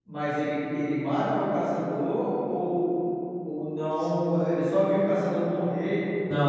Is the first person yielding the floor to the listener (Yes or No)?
Yes